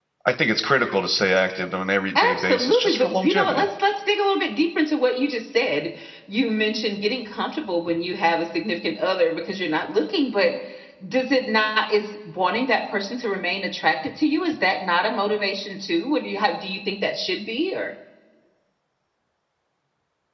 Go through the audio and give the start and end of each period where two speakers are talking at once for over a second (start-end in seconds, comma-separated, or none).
2.2-3.6